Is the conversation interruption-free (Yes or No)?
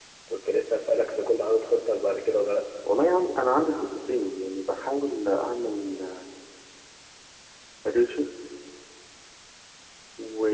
Yes